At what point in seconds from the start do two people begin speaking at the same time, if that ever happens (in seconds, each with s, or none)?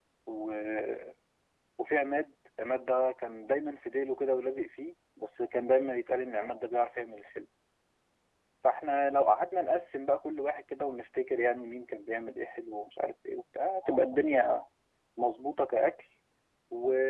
none